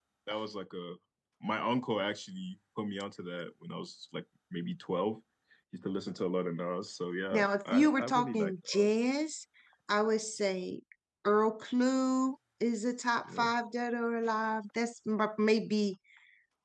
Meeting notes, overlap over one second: present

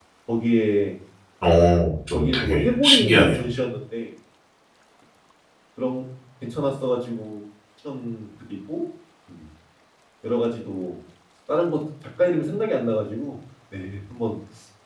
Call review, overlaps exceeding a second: present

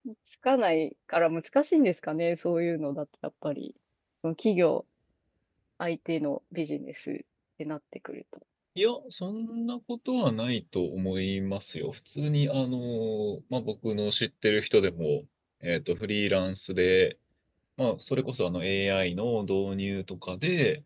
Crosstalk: none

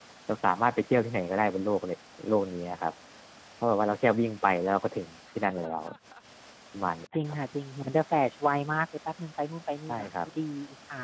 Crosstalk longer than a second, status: none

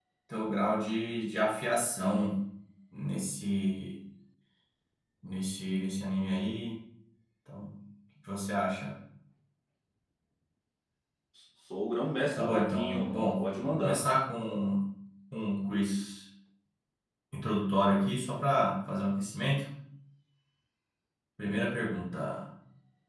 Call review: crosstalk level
present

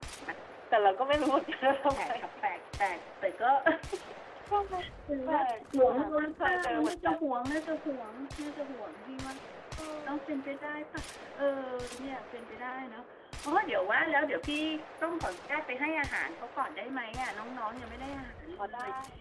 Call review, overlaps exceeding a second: present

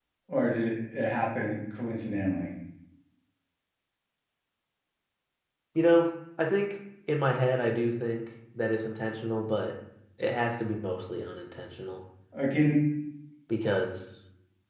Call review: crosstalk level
none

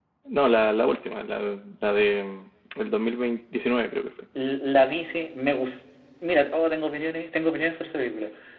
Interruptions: none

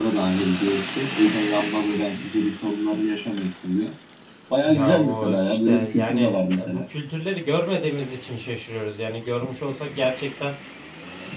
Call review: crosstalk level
present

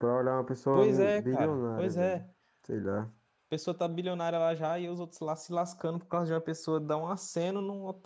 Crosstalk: present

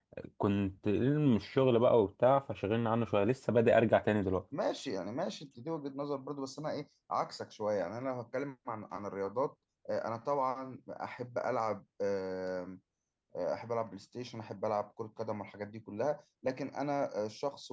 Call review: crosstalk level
none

